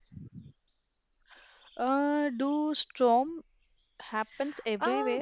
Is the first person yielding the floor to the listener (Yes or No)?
Yes